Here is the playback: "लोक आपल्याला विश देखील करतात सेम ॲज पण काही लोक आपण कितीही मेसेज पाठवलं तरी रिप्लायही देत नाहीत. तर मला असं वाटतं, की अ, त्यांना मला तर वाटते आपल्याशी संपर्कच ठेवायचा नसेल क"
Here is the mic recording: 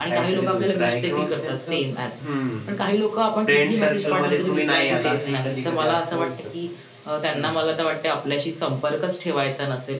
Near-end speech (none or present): present